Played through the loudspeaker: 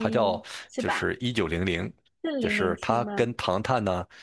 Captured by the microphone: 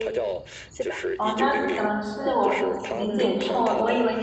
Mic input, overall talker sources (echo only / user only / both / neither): both